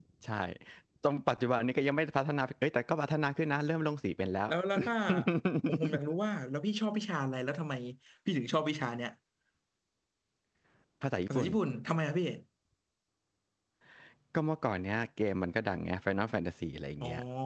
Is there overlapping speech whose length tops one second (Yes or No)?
No